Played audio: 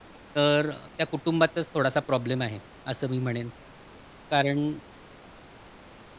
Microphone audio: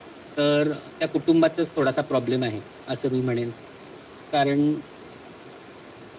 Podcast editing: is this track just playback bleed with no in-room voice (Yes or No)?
Yes